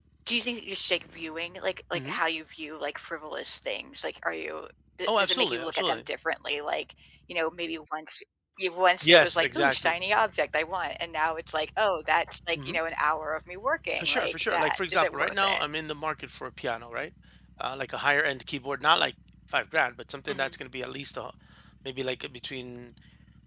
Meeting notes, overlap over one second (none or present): present